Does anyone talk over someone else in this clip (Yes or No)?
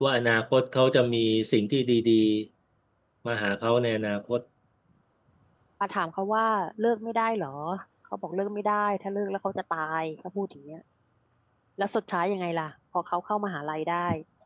No